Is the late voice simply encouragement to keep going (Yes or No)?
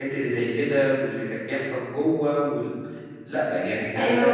No